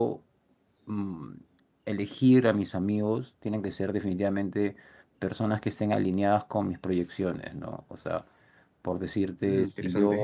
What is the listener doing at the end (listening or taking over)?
listening